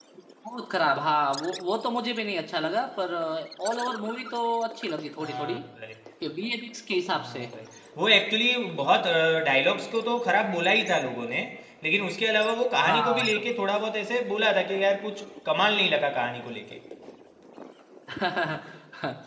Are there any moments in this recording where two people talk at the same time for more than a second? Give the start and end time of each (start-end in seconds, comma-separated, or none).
none